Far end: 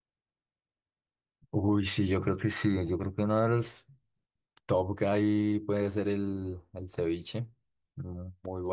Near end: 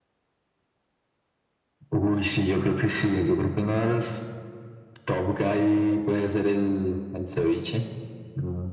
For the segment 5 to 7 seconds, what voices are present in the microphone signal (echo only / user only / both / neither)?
echo only